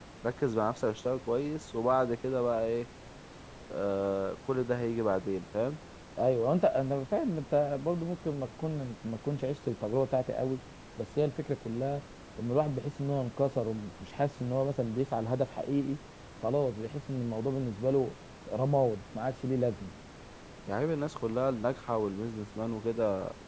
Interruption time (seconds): none

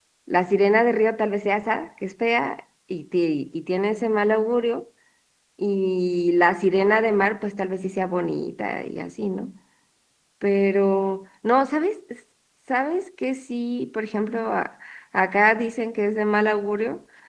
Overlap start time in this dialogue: none

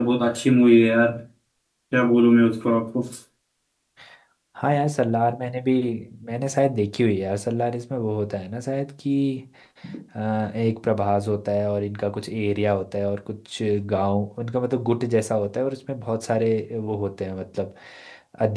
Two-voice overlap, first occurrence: none

